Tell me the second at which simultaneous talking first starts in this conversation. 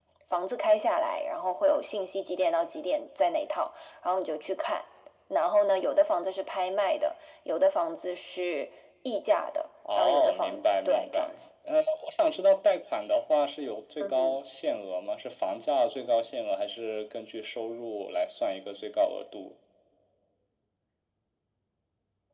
10.0 s

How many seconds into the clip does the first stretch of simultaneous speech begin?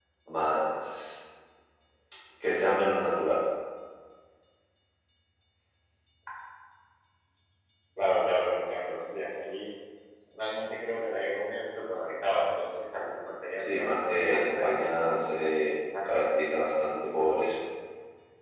13.6 s

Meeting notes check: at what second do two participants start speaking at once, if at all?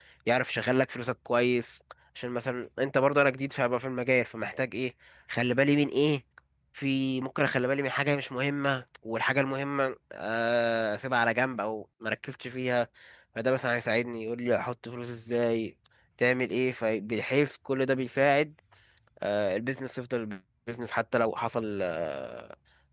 none

